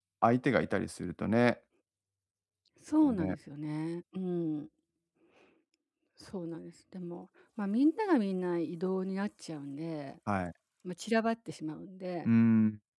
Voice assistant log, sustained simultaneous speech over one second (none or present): none